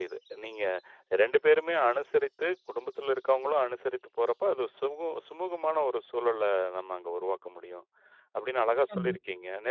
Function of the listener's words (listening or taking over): listening